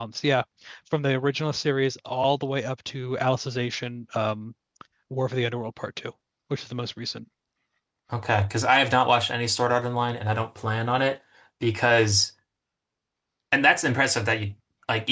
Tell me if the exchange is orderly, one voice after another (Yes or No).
Yes